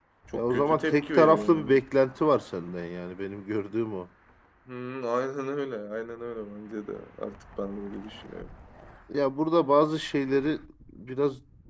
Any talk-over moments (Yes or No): Yes